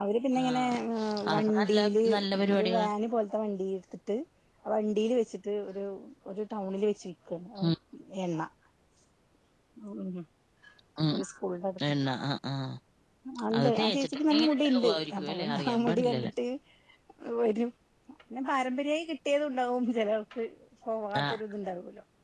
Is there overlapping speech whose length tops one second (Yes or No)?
Yes